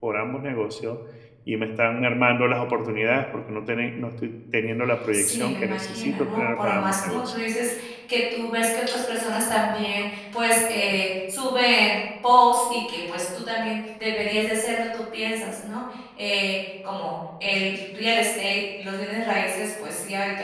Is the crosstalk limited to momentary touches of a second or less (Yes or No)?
No